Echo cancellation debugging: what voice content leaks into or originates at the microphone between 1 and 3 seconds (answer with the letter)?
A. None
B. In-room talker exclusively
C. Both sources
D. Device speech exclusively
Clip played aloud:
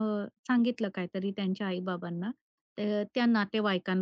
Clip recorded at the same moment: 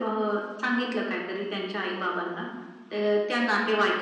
D